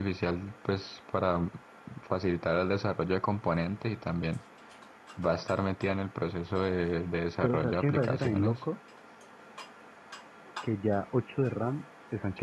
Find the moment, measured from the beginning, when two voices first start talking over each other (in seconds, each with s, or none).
7.4 s